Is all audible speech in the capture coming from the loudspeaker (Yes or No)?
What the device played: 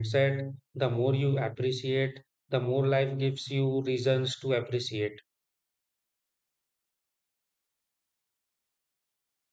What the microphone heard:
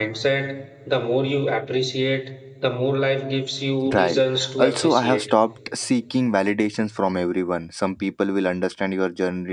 No